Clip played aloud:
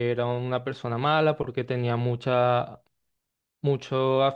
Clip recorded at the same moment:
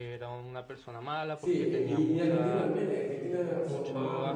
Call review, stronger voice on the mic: user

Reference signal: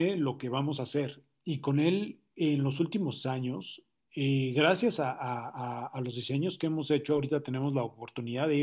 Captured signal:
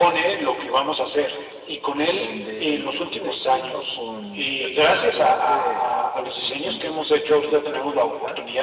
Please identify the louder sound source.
echo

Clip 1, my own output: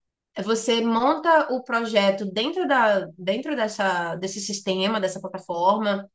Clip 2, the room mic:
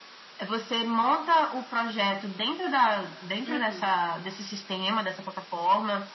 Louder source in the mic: echo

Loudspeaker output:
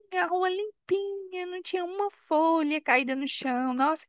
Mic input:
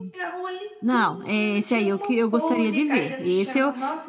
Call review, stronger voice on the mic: user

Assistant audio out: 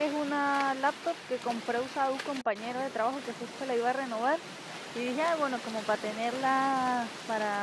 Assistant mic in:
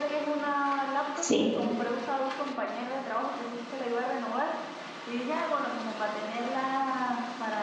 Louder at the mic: user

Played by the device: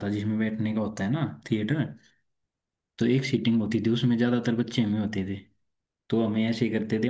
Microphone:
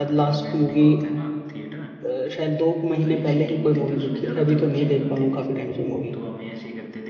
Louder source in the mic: user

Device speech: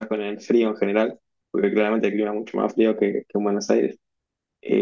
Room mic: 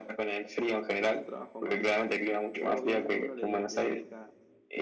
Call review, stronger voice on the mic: echo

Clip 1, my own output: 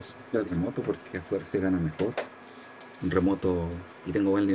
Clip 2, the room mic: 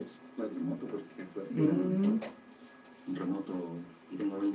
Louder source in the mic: user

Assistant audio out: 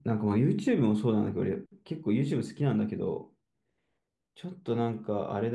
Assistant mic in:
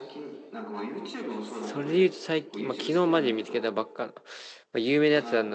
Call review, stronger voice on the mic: user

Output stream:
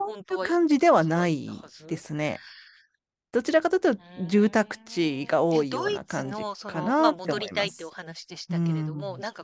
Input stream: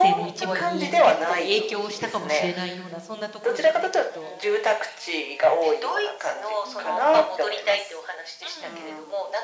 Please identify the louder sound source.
echo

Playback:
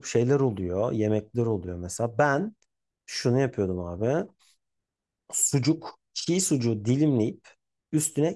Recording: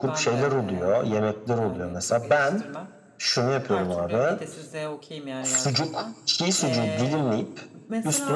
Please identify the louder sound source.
echo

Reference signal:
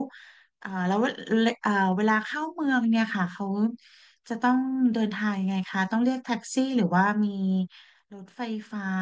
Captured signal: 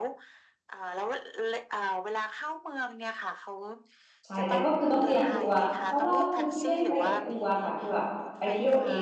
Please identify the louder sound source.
user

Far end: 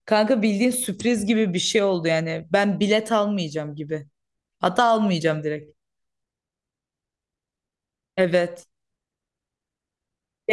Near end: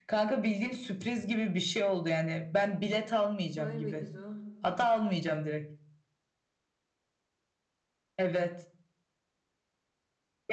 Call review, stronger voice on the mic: echo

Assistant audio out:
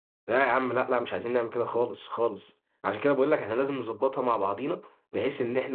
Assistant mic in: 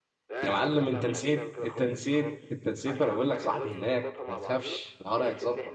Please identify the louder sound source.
user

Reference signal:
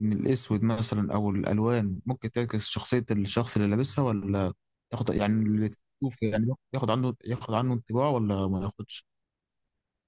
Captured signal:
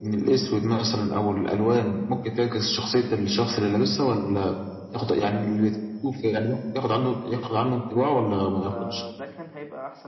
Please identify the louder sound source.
echo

